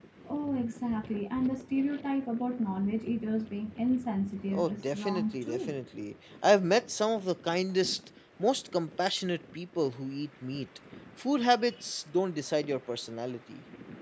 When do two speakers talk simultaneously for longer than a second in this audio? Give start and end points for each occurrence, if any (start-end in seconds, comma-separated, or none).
4.5-5.7